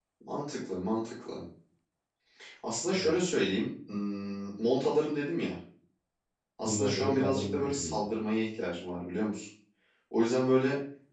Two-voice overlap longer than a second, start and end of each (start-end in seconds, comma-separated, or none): 6.6-8.0